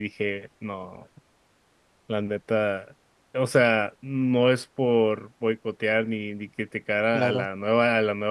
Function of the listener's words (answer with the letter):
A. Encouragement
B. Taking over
A